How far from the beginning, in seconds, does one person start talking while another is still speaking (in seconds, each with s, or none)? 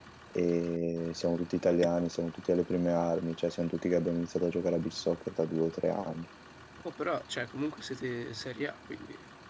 none